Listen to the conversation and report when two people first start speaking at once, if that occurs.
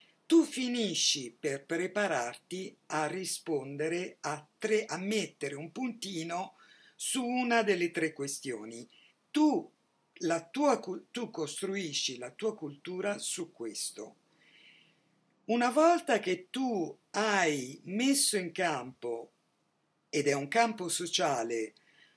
none

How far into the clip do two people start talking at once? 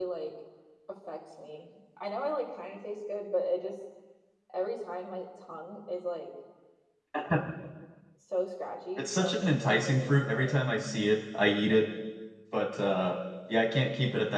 9.0 s

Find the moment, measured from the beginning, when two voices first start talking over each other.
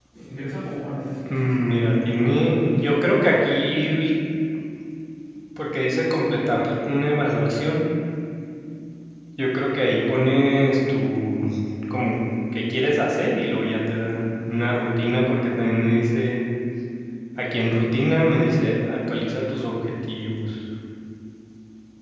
1.3 s

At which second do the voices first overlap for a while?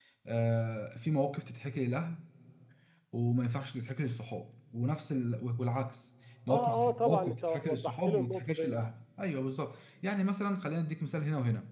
6.5 s

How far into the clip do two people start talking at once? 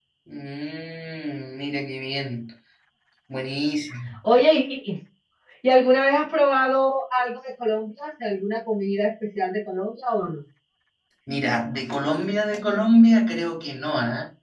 none

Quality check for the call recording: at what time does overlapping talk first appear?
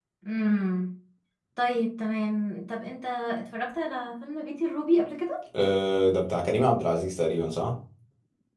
none

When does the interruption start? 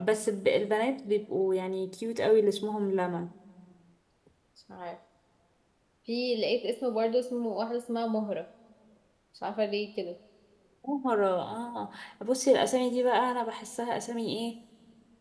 none

